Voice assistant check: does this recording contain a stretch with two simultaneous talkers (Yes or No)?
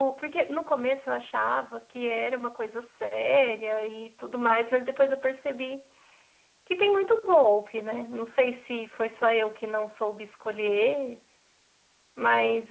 No